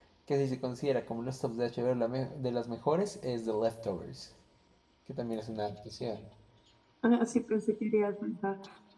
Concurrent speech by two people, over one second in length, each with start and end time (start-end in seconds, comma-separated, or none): none